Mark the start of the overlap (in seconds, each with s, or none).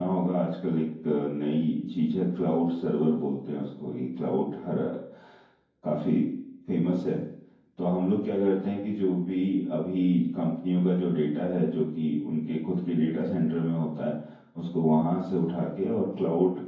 none